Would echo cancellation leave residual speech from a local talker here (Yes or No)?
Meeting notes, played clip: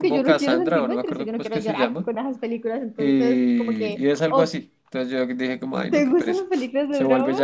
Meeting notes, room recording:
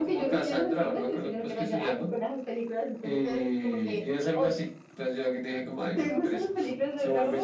No